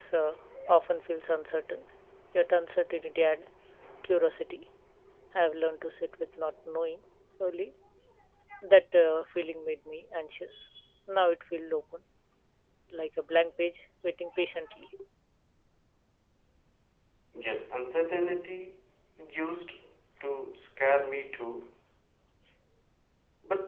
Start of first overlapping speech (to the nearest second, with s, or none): none